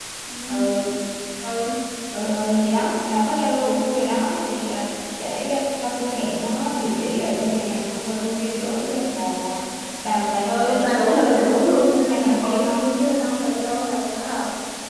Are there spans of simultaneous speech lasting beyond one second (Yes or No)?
Yes